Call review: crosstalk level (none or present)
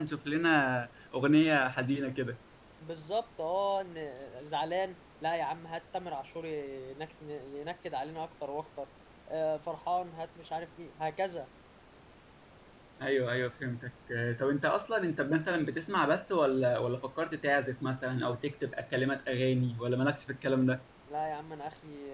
none